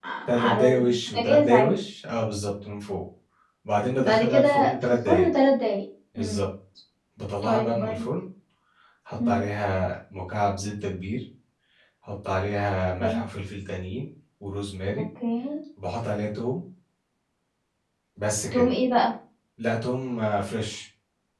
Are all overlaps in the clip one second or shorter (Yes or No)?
No